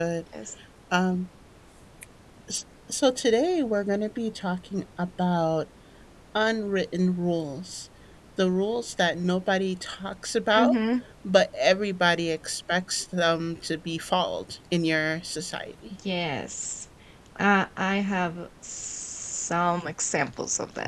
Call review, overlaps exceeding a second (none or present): none